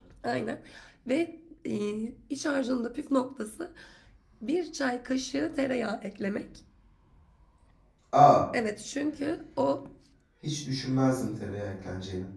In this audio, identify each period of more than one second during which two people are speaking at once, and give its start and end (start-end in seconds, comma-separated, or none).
none